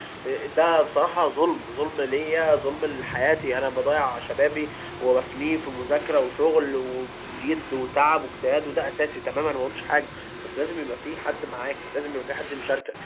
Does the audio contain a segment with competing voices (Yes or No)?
No